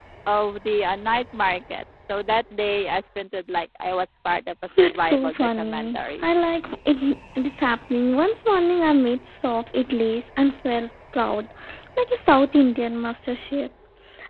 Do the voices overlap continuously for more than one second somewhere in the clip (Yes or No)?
Yes